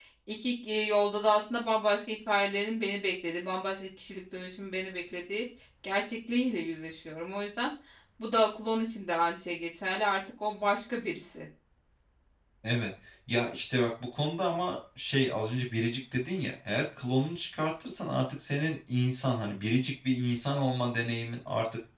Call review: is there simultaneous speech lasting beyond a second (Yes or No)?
No